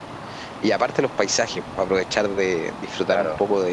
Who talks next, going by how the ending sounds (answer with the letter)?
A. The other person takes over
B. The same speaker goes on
B